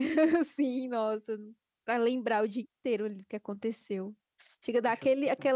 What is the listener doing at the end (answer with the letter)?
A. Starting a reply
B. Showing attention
B